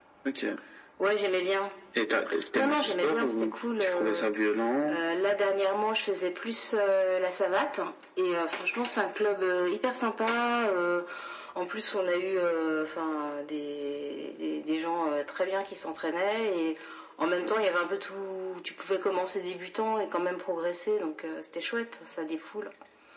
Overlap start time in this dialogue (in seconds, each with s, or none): 2.6 s